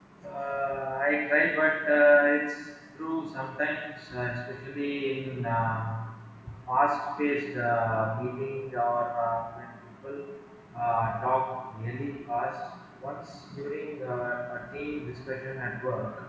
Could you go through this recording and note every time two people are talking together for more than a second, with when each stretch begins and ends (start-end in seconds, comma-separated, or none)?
none